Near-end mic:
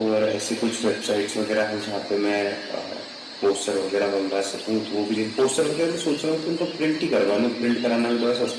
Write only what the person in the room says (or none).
none